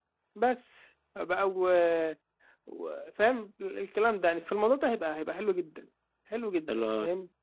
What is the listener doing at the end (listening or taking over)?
taking over